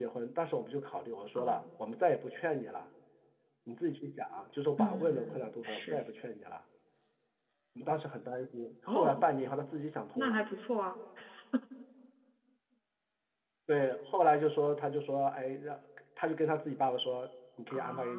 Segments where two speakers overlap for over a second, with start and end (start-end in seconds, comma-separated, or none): 4.8-6.0